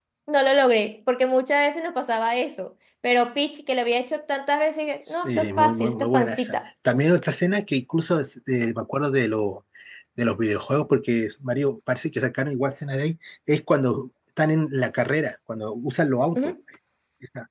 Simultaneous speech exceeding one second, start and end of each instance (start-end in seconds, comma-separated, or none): 5.1-6.5